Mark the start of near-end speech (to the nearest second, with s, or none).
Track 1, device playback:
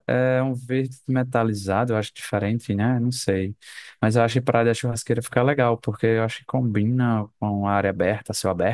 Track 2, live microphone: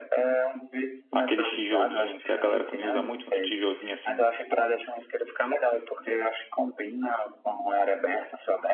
1 s